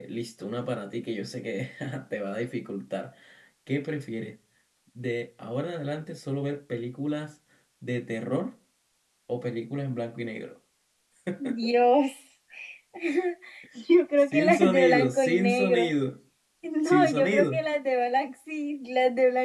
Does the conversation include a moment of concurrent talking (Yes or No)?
Yes